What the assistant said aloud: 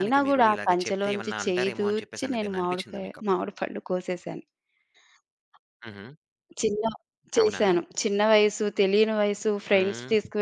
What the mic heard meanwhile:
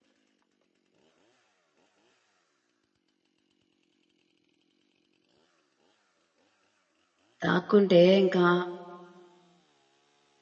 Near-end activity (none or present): present